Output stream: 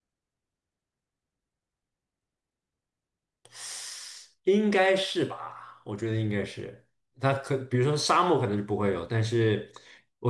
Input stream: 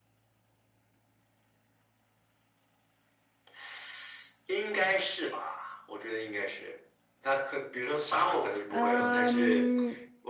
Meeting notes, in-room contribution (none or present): present